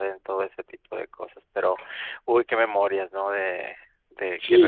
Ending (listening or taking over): taking over